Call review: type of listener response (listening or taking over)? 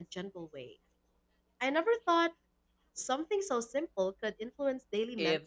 taking over